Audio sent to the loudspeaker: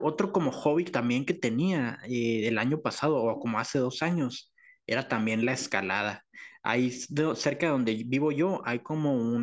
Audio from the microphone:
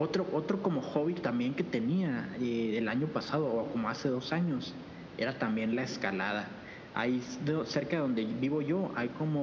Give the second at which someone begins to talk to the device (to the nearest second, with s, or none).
none